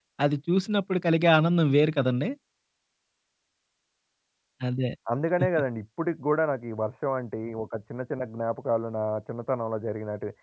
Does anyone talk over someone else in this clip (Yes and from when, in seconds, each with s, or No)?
No